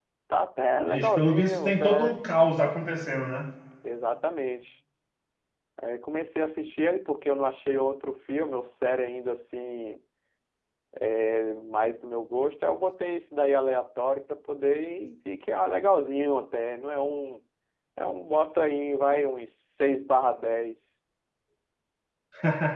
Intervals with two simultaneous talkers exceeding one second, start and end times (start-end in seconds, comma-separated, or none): 0.9-2.2